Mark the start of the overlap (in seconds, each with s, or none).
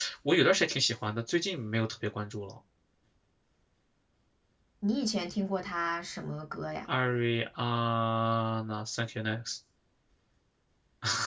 none